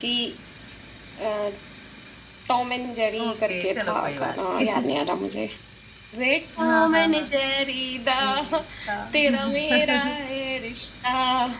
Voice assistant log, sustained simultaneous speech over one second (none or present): present